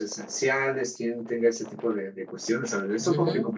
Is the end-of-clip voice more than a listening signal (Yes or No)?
Yes